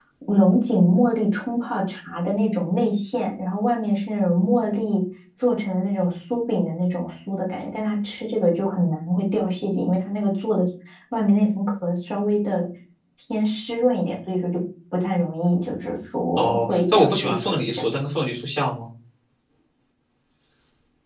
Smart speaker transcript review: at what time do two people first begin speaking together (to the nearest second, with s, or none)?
16 s